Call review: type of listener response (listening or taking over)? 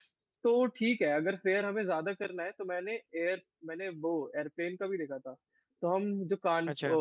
listening